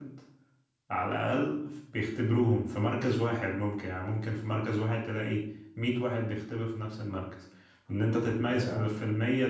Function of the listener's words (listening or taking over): listening